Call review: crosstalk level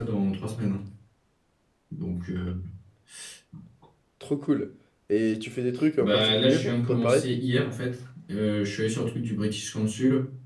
present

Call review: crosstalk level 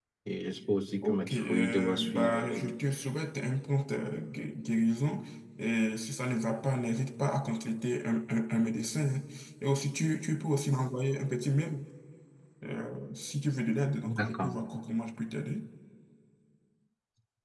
present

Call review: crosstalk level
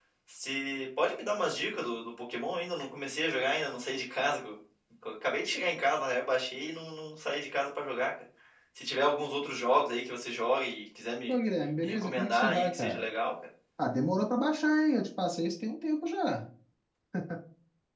present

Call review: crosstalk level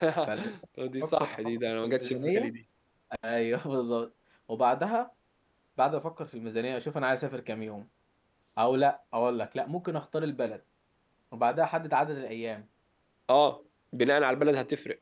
present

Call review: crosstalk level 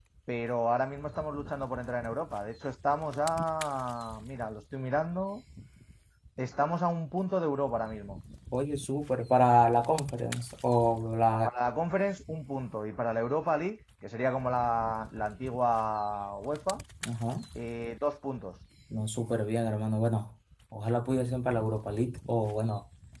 none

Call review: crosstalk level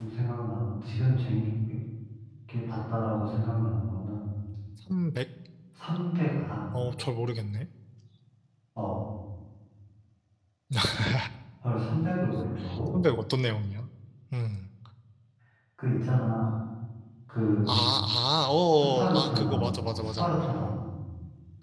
present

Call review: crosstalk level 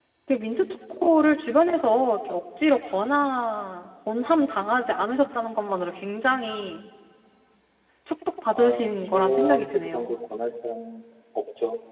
present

